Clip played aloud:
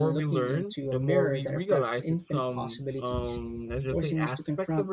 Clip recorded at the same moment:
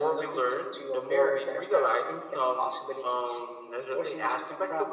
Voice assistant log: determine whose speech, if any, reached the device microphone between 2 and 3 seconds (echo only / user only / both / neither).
echo only